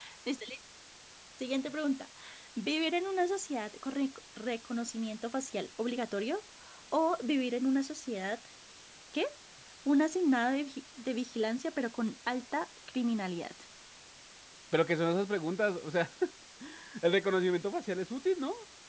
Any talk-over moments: No

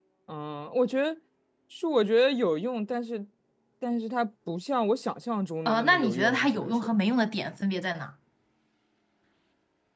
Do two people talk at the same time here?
Yes, from 5.7 s

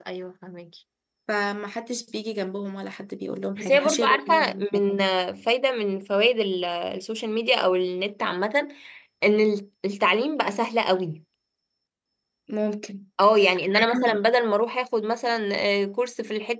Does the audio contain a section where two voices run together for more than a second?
Yes, from 3.5 s

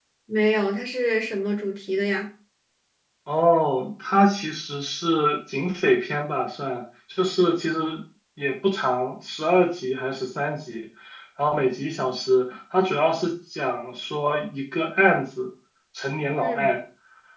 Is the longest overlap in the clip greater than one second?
No

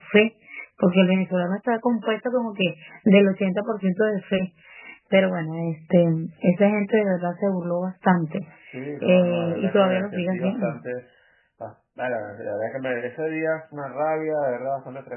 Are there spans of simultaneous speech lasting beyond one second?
Yes, from 9.0 s

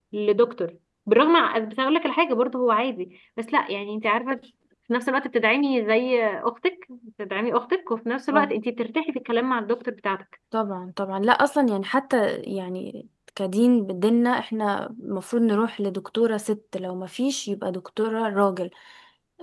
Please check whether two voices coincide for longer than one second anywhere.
No

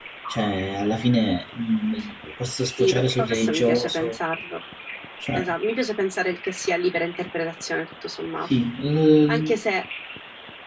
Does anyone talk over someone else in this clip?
Yes, from 2.8 s

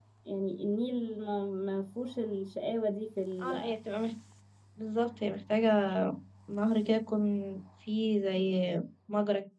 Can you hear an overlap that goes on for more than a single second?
No

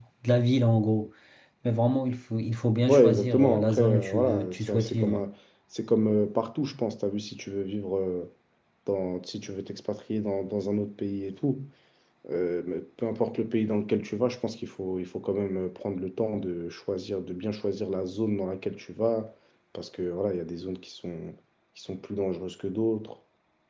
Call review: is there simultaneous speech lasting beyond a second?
Yes, from 2.9 s

